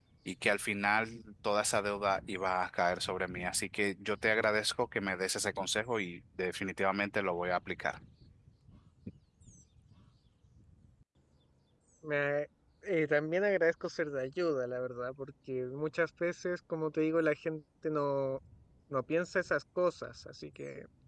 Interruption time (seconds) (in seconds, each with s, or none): none